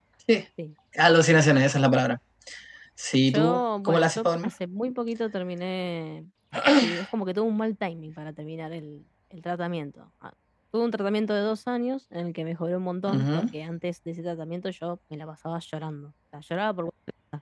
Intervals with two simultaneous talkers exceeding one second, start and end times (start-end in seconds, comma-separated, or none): 3.3-4.5